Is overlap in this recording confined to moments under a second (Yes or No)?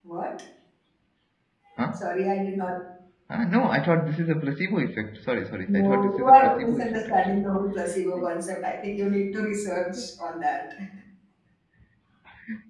No